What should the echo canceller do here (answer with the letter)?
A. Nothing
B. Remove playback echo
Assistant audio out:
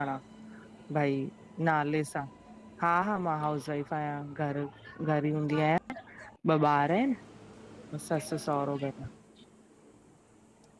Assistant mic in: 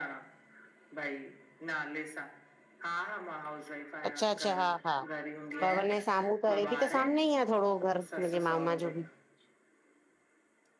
B